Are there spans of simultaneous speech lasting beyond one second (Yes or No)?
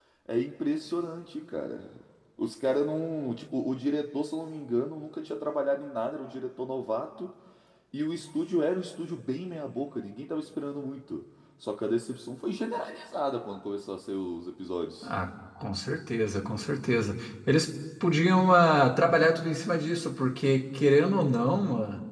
No